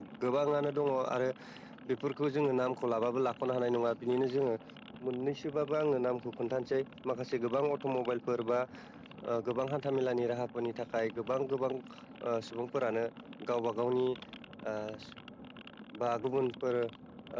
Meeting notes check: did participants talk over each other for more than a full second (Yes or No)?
No